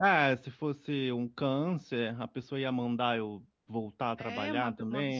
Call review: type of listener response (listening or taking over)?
taking over